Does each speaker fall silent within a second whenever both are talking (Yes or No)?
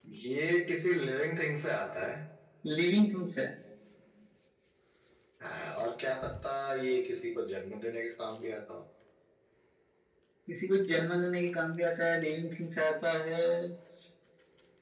Yes